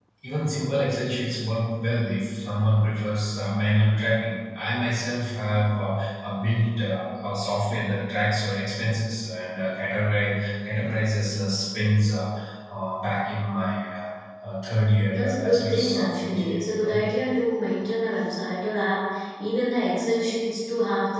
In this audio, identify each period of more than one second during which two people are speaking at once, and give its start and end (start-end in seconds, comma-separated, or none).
15.1-17.0